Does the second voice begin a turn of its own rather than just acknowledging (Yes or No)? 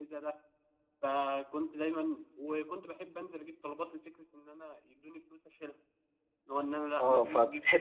Yes